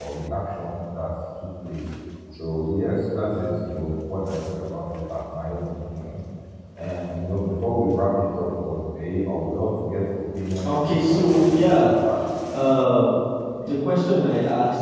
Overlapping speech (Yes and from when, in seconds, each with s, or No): Yes, from 10.6 s